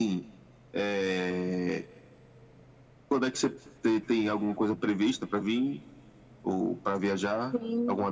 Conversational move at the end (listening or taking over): taking over